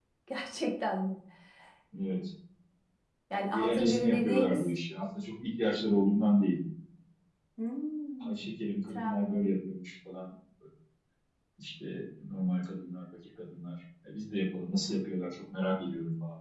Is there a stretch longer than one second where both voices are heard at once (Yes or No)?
Yes